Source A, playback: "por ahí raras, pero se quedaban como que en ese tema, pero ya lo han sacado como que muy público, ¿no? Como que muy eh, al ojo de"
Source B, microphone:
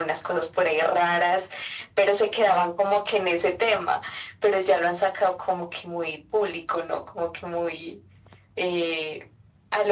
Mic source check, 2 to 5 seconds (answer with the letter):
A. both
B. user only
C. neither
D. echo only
D